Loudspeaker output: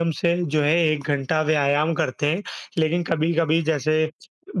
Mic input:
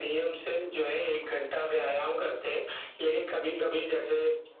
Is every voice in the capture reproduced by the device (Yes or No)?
Yes